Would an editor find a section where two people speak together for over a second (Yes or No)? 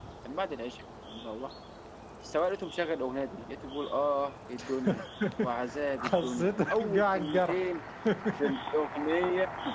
Yes